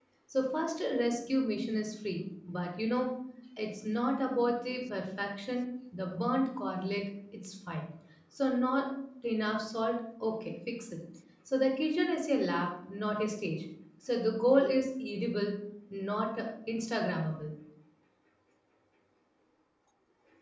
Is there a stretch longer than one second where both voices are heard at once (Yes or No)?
No